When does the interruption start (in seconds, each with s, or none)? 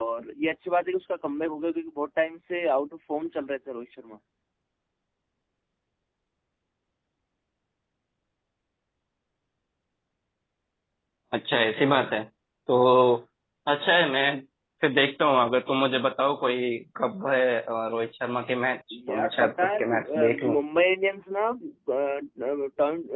18.9 s